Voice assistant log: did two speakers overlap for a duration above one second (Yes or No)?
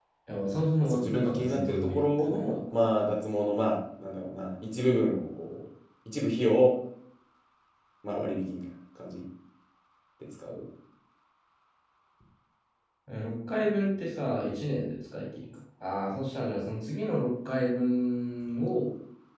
Yes